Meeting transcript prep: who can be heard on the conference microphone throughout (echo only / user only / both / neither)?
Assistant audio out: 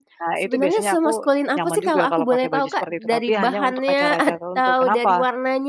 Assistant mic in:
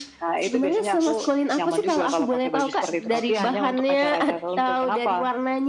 echo only